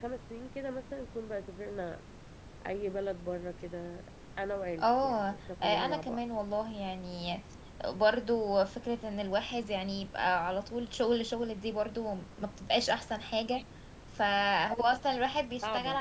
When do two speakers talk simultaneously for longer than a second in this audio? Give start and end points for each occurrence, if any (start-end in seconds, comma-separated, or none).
4.8-6.2